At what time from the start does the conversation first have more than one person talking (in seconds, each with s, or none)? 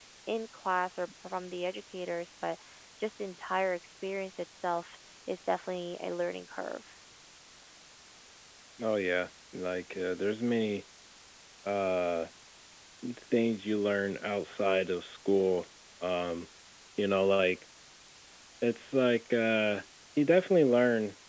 none